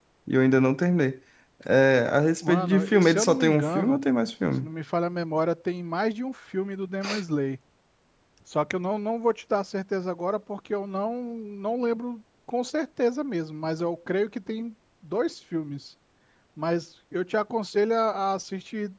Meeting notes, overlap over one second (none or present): present